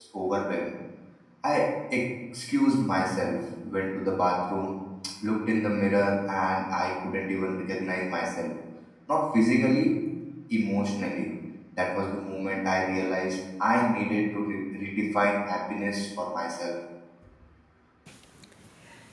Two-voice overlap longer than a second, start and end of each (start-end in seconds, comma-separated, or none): none